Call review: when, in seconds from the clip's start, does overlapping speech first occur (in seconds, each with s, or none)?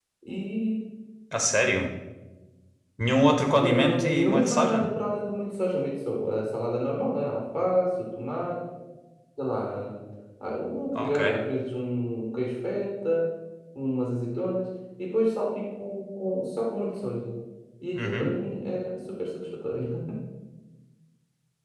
3.6 s